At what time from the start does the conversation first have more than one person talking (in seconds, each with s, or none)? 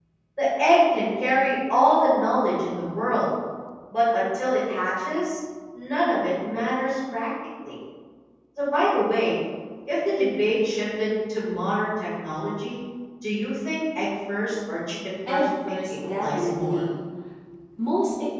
15.3 s